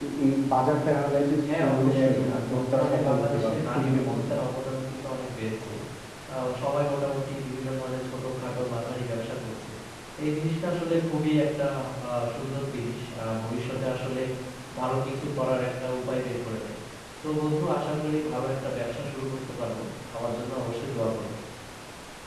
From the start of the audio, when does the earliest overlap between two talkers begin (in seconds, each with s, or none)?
1.4 s